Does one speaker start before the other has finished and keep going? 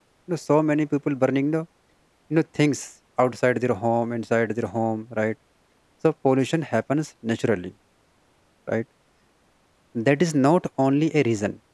No

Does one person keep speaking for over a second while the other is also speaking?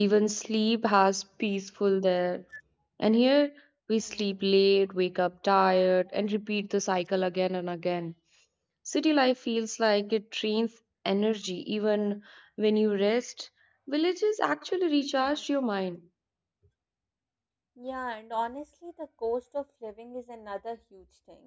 No

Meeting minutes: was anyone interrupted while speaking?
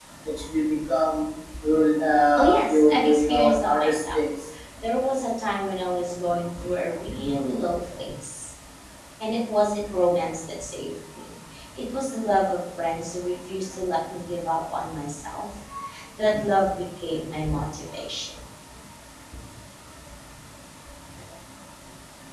Yes, from 2.4 s

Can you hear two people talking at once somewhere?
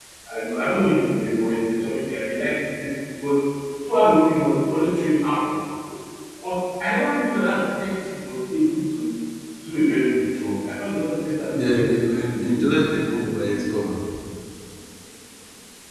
Yes, from 11.5 s

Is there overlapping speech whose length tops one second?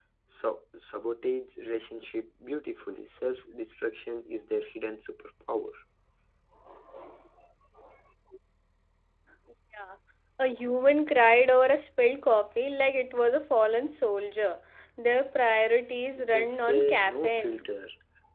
Yes, from 16.2 s

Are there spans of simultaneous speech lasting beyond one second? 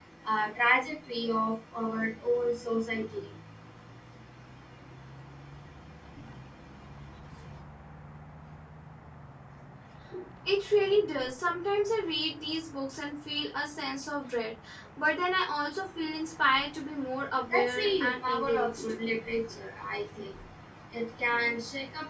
Yes, from 17.5 s

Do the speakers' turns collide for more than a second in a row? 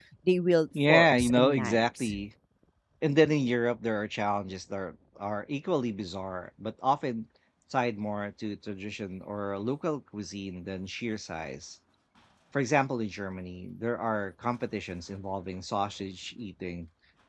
Yes, from 0.9 s

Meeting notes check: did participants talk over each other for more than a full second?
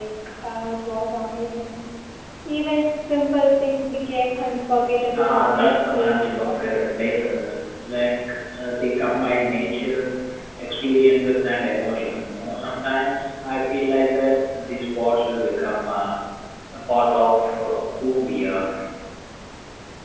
Yes, from 5.1 s

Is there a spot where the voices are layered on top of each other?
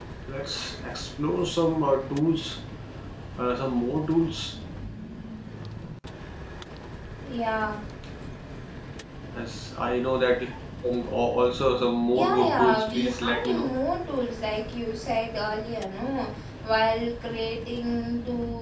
Yes, from 12.1 s

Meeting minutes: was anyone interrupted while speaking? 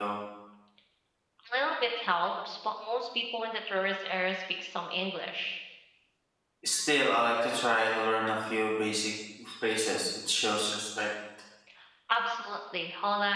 No

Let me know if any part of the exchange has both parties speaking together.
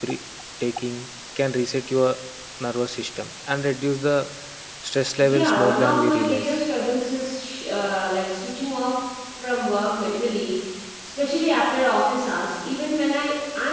Yes, from 5.2 s

